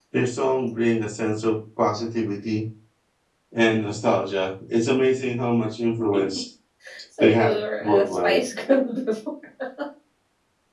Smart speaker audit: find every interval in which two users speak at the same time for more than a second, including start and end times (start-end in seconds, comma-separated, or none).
7.2-8.4